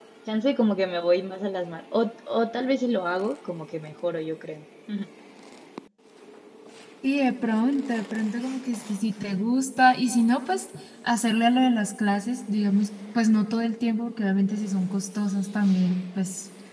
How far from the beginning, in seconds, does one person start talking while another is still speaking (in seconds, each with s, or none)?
none